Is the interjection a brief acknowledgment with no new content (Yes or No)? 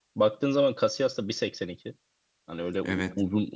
Yes